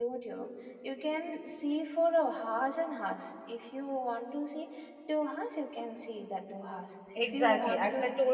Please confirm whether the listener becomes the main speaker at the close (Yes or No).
Yes